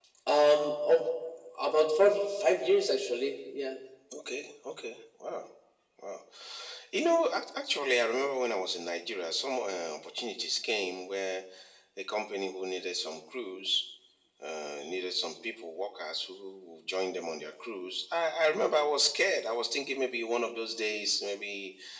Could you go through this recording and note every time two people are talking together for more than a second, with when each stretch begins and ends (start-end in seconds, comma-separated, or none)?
none